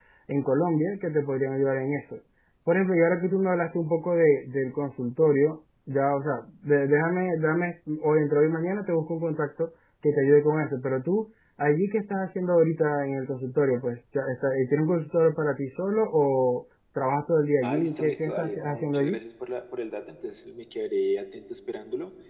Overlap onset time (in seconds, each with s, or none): 17.6 s